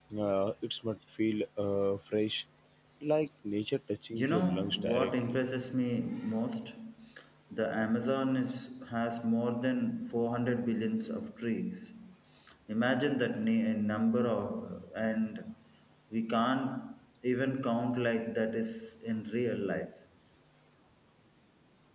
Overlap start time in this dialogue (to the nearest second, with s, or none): 4 s